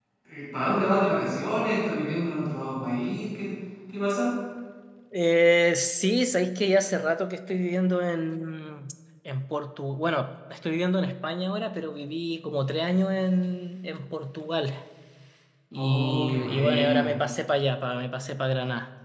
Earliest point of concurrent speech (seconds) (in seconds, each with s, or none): 15.8 s